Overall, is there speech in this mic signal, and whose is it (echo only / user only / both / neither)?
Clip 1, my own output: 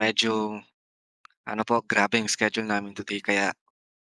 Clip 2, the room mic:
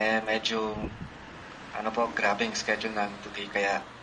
echo only